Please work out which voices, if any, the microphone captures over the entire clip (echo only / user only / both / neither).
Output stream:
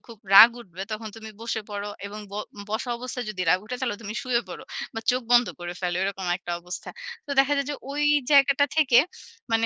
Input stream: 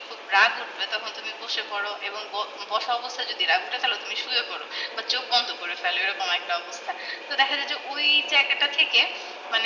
echo only